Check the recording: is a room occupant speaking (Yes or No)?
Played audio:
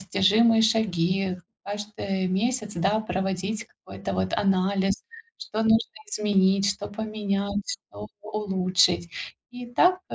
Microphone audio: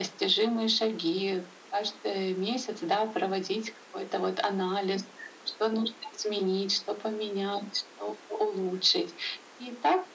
No